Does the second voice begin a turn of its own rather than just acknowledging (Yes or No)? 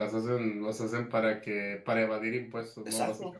Yes